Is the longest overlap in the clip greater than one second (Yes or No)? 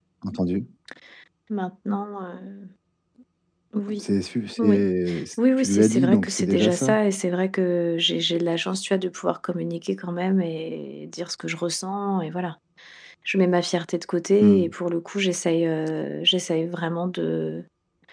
Yes